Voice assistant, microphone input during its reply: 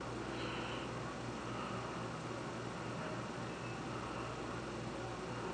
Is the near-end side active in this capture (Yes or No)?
No